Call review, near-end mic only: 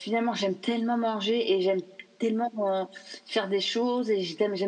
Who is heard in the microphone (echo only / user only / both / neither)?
echo only